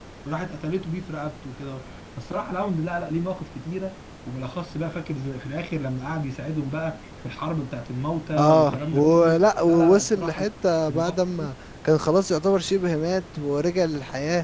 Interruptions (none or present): present